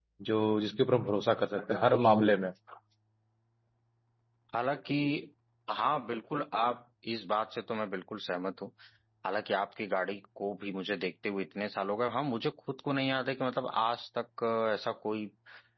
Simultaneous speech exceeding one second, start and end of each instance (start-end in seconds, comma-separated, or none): none